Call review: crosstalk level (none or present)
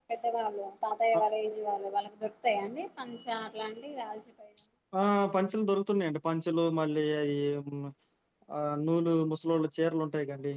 none